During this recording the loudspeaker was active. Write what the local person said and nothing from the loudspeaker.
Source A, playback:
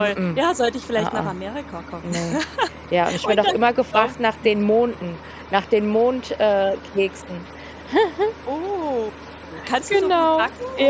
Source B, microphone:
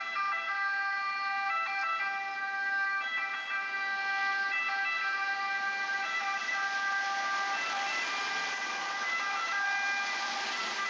none

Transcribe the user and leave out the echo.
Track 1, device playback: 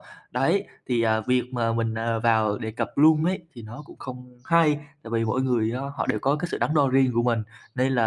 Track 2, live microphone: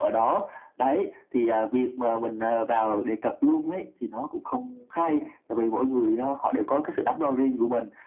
none

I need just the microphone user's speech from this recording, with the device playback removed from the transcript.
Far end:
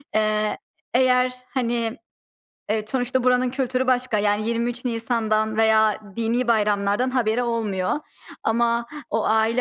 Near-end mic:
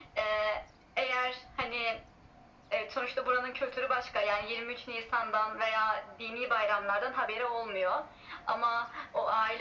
none

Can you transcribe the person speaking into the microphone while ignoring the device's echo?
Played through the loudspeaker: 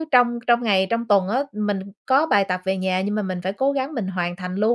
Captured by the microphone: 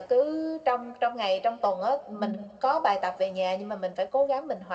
Ừm.

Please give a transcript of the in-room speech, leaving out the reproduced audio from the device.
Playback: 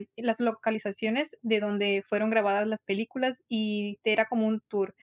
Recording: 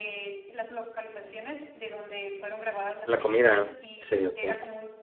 La comida. Sí, okey.

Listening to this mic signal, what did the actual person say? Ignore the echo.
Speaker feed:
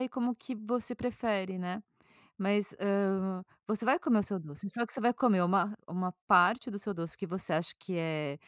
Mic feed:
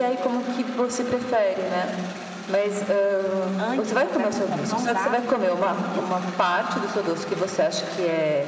Antes, eu bebo um copão d'água, é isso?

